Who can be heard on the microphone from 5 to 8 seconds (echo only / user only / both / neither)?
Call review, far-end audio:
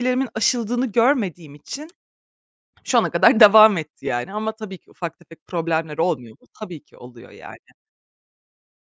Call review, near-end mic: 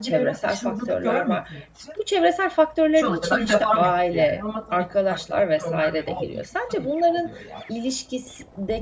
both